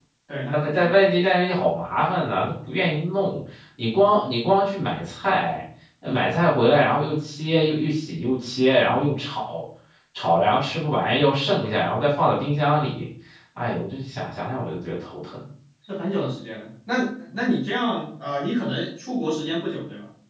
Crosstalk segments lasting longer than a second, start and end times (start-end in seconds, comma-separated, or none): none